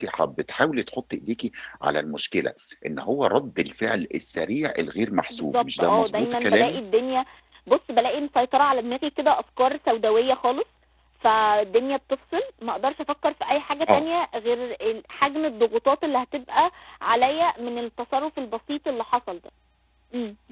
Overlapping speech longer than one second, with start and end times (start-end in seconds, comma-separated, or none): 5.3-6.8